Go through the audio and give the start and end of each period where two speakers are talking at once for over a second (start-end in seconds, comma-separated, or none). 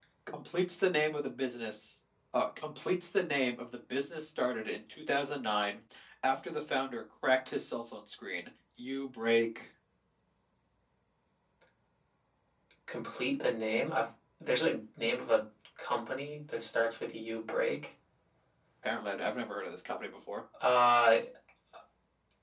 none